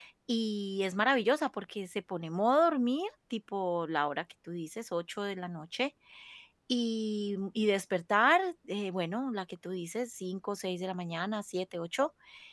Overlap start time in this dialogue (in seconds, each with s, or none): none